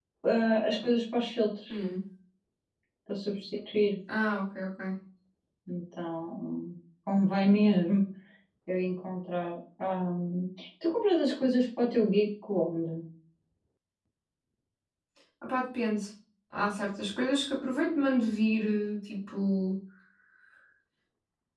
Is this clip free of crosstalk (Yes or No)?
Yes